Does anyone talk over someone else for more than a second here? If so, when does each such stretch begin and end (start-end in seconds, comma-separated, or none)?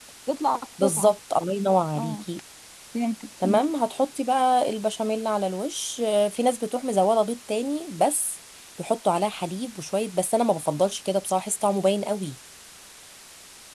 none